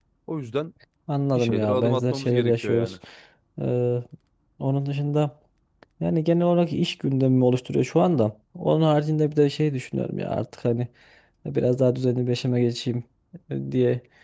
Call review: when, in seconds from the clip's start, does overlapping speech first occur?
1.4 s

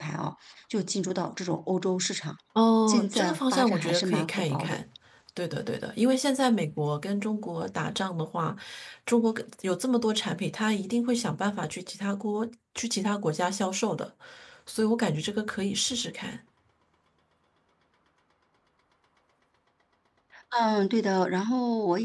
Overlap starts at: 2.9 s

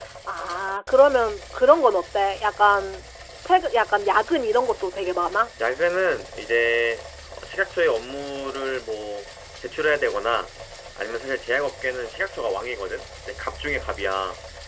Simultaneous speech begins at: none

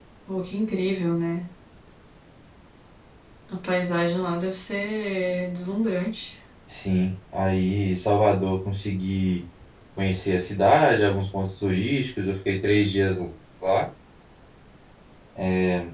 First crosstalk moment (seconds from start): none

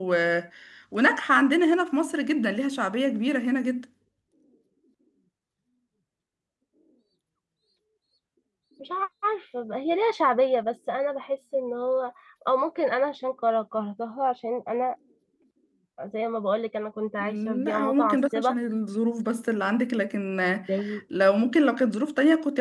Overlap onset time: 17.2 s

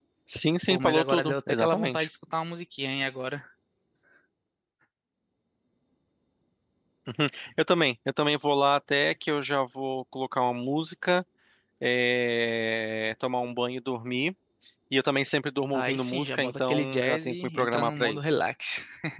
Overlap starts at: 0.7 s

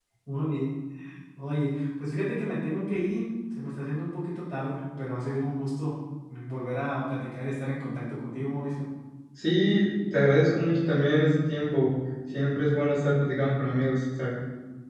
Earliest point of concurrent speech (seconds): none

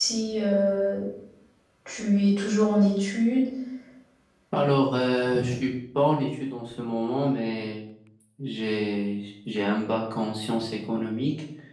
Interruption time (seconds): none

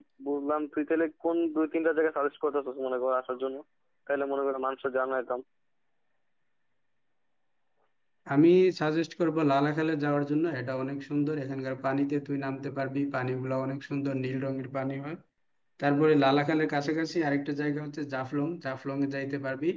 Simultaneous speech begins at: none

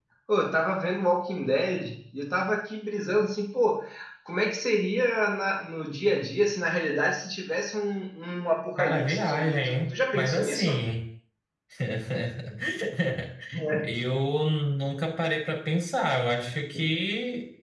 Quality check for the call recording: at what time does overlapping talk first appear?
8.8 s

